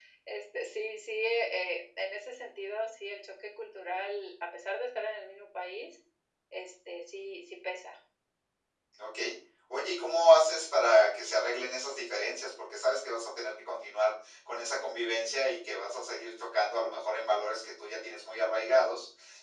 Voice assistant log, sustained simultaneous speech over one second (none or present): none